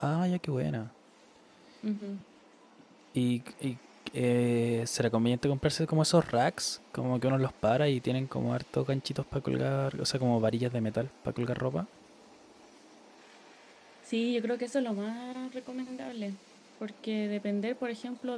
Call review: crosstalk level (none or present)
none